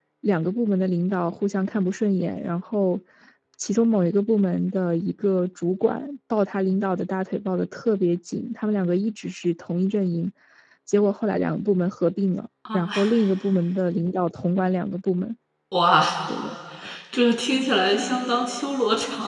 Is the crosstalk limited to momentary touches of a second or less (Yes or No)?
Yes